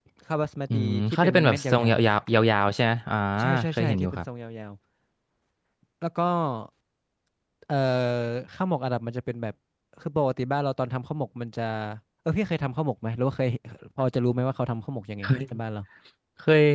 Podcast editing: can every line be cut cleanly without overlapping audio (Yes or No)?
No